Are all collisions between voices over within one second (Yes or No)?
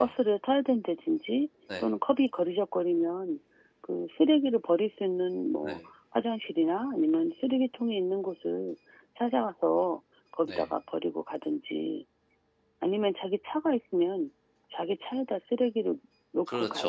Yes